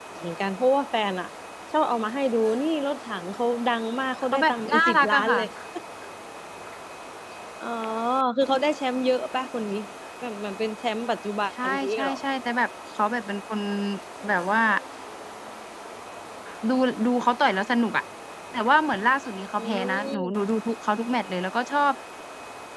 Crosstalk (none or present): present